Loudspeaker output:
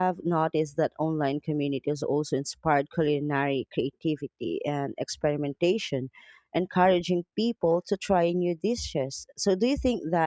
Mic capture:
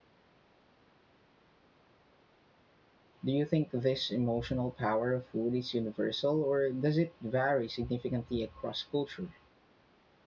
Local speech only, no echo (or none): Do you think this emotional power of food is universal, or does it vary significantly across culture?